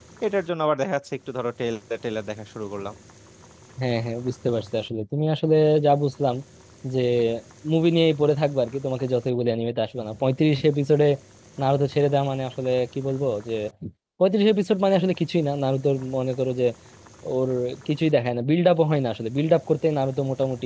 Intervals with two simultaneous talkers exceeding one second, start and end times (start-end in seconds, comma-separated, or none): none